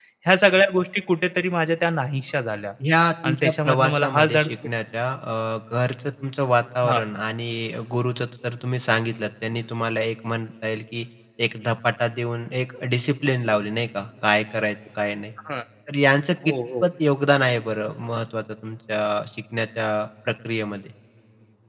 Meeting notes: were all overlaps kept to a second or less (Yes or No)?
No